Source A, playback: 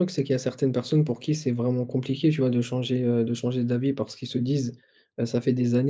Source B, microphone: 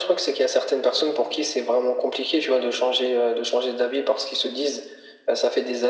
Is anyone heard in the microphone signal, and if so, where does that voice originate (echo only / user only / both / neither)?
echo only